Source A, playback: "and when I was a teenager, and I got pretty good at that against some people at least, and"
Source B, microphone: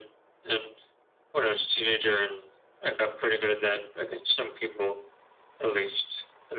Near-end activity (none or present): none